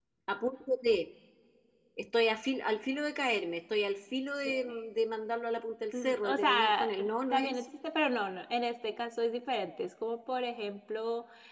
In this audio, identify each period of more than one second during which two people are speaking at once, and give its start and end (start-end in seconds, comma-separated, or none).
5.9-7.6